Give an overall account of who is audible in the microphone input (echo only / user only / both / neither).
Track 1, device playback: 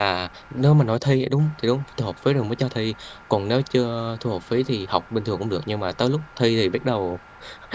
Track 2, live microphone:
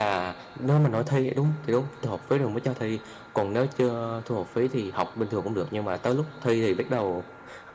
echo only